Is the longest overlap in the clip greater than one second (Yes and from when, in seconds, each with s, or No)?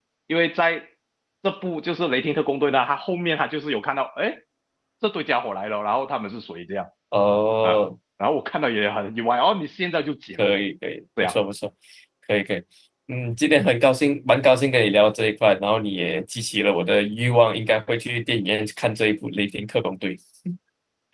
No